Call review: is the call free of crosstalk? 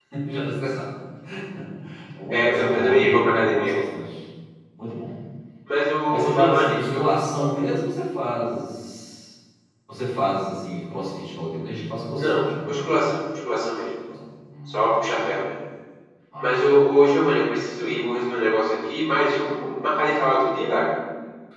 No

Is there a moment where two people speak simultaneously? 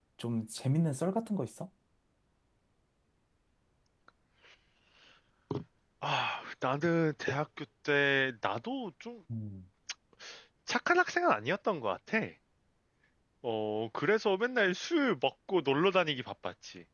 No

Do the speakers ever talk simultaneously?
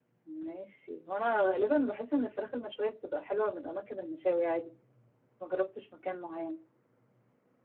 No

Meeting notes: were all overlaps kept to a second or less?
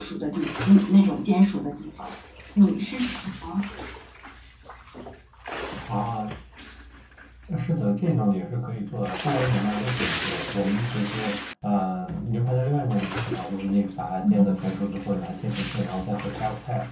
Yes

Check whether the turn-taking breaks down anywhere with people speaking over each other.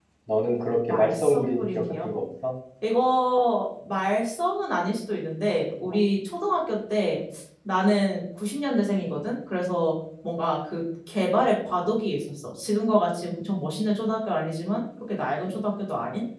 Yes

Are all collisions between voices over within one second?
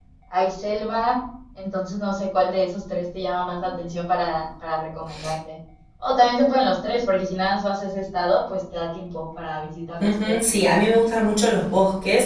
Yes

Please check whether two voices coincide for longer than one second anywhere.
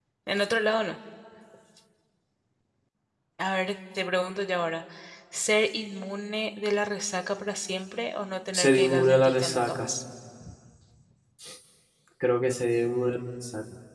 Yes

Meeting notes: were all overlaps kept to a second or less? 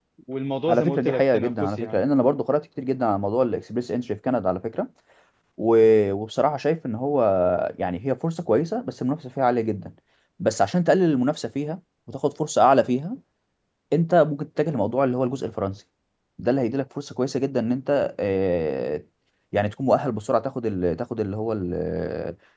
No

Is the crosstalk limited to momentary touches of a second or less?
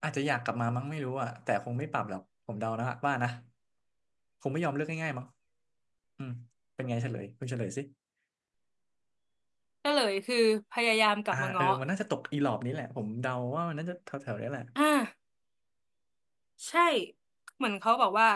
Yes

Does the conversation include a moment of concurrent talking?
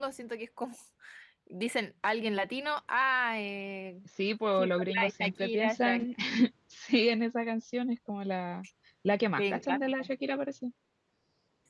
Yes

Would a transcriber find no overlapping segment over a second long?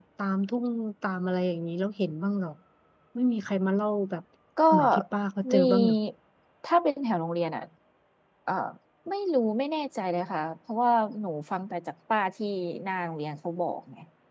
Yes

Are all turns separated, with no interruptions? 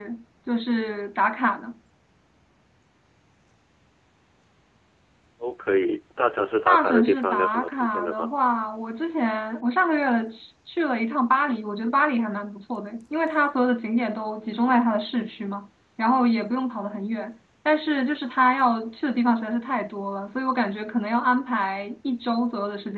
No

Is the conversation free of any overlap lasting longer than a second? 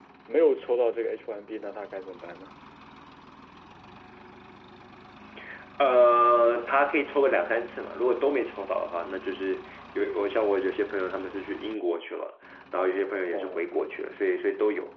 Yes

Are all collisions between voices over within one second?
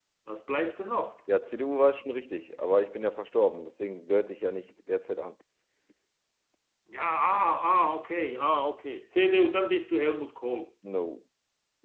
Yes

